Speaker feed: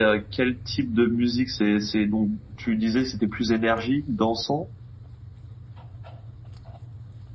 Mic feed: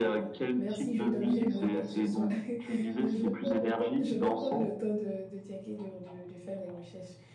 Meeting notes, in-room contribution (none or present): present